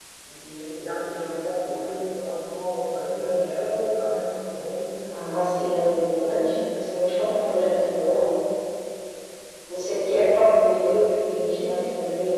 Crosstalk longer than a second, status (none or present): none